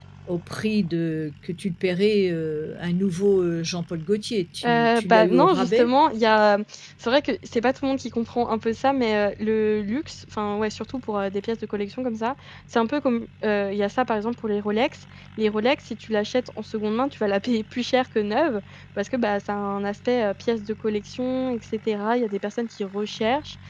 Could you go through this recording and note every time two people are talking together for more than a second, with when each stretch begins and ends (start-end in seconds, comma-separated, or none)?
4.6-5.9